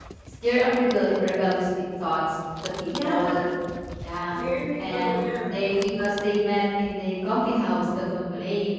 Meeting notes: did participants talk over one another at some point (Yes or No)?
Yes